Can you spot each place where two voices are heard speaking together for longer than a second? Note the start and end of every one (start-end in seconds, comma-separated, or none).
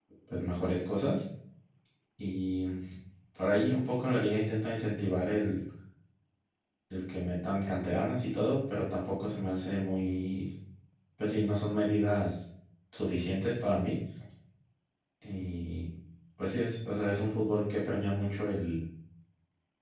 none